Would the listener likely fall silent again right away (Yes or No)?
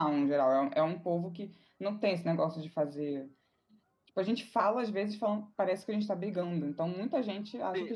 No